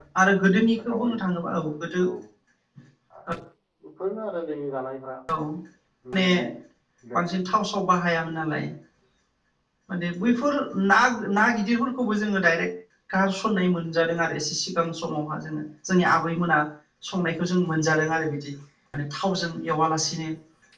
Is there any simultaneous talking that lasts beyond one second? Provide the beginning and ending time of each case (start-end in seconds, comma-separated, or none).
none